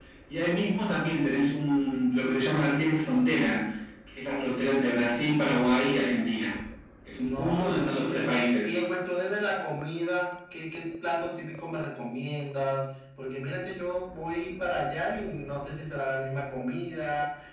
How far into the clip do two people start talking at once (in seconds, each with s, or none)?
7.2 s